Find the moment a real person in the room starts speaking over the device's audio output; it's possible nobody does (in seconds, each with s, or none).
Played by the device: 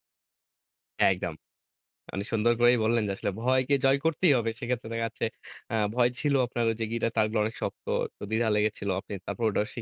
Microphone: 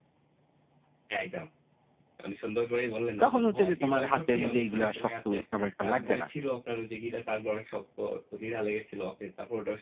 3.2 s